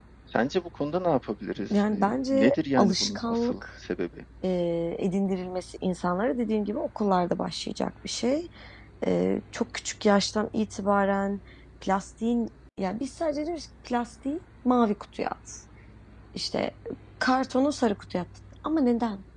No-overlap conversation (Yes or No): No